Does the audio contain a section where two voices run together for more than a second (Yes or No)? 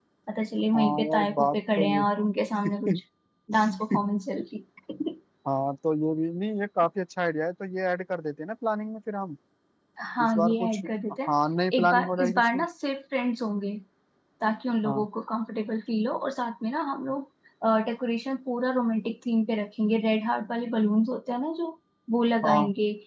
Yes